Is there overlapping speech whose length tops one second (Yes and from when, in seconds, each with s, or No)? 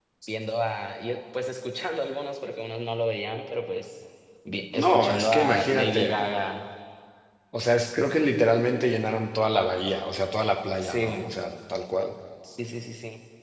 Yes, from 4.7 s